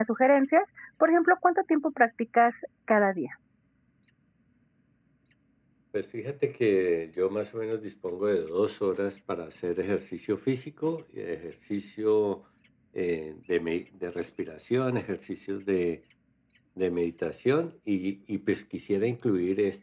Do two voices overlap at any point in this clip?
No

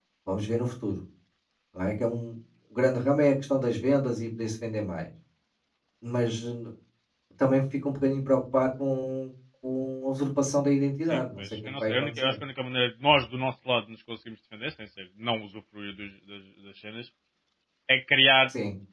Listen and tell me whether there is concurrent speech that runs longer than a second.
Yes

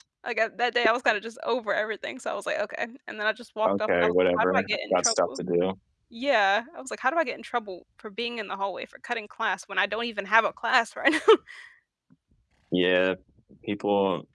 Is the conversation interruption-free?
No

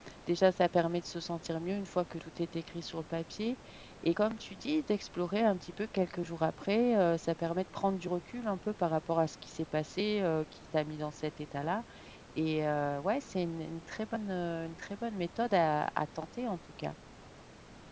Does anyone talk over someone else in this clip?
No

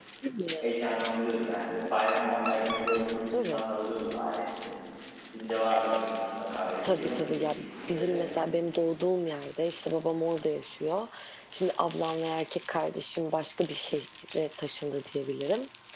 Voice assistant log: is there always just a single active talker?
No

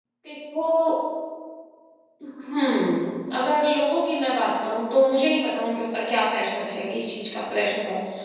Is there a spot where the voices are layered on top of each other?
No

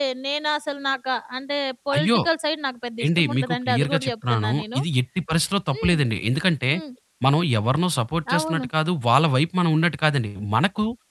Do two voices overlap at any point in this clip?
Yes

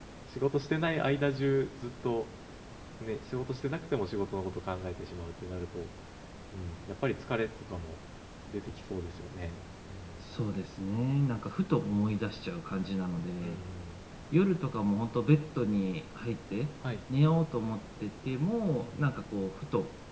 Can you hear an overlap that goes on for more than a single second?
No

